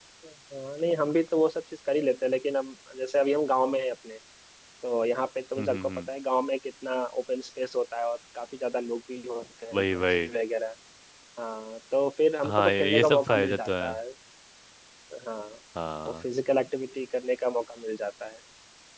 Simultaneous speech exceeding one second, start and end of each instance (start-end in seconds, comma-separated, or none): 12.5-13.9